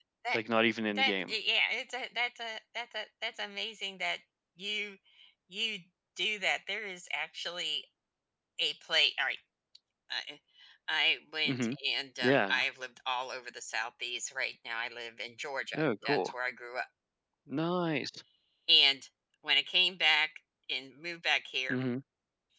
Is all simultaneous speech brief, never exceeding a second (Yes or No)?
Yes